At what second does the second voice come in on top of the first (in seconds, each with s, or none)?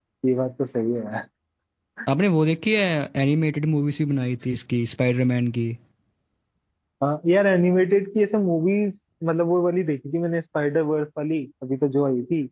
none